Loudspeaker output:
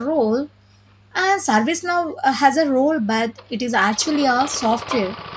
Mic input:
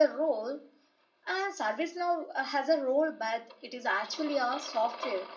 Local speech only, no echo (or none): none